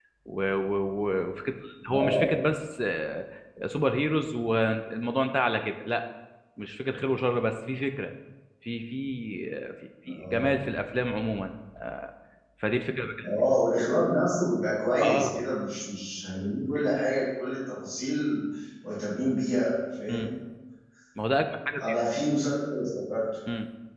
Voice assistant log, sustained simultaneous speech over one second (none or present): none